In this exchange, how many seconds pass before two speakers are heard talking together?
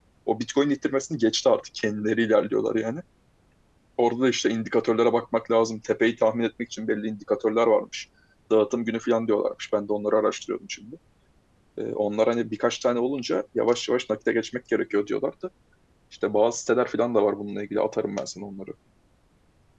none

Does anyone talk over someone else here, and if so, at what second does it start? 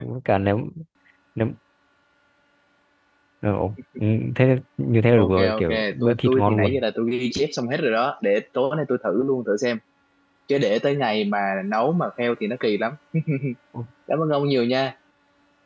5 s

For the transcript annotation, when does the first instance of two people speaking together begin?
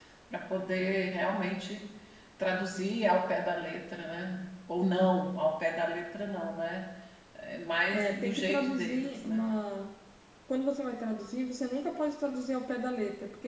8 s

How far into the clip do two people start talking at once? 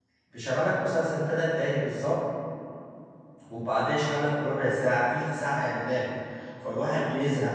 none

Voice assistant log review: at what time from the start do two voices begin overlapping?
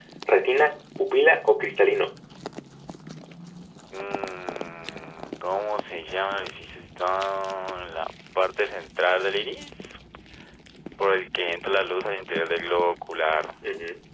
none

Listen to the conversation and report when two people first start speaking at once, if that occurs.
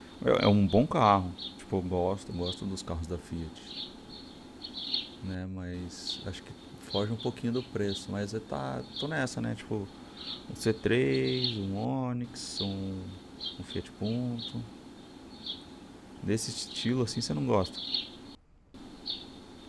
none

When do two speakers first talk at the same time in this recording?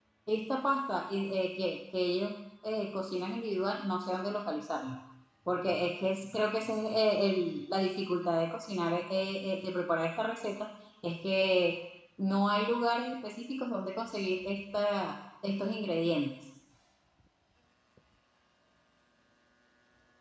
none

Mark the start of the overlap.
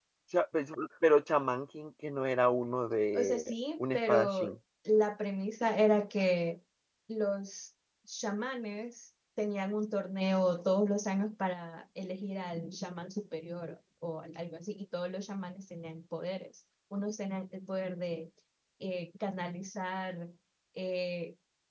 3 s

